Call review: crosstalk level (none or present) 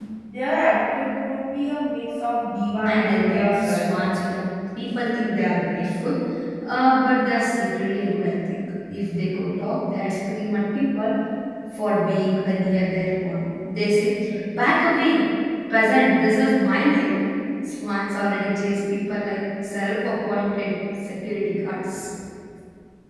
present